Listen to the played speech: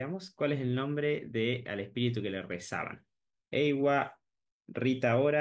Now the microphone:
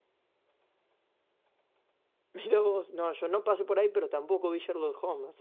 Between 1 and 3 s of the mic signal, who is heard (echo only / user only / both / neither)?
user only